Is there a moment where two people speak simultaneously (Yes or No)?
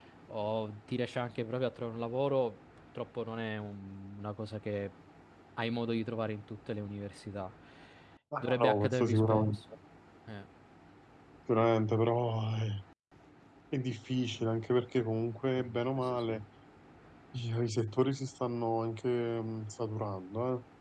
Yes